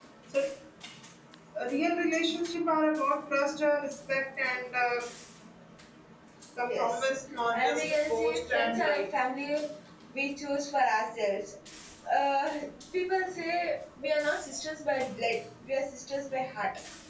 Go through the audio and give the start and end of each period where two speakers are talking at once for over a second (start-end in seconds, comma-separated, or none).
7.5-9.0